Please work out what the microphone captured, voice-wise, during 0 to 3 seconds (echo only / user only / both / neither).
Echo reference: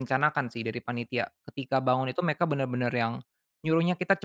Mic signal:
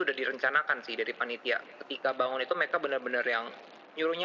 echo only